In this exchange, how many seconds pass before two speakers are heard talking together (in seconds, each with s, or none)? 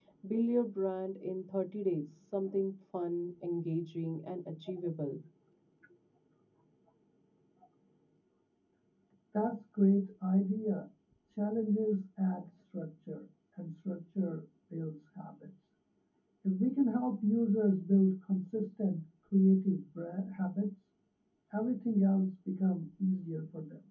none